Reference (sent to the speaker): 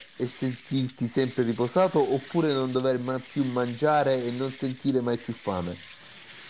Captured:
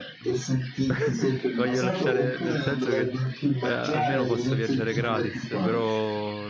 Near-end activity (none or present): present